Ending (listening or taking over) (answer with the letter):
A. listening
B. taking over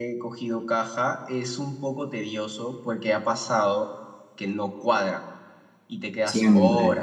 B